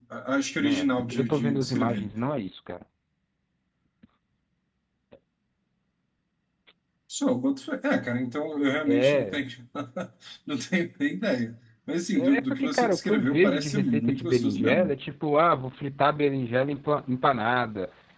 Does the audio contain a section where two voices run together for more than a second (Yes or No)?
Yes